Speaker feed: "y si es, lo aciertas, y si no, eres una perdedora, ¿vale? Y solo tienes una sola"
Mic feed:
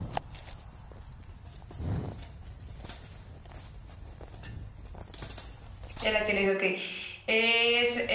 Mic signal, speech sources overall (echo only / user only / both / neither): user only